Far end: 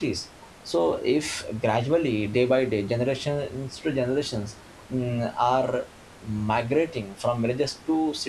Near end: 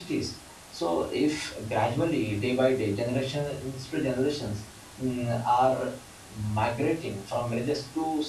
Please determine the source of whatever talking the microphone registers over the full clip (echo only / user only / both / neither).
echo only